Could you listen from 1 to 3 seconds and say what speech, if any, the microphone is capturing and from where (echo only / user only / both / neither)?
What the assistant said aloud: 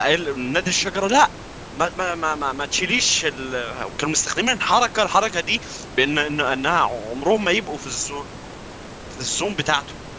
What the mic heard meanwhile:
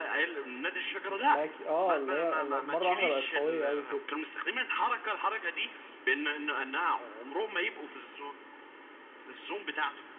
both